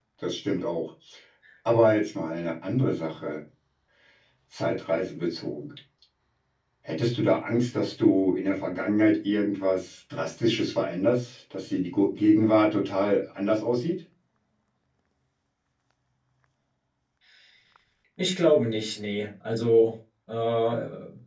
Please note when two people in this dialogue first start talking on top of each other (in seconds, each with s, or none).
none